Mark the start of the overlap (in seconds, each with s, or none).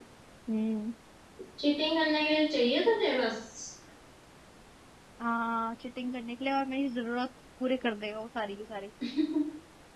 none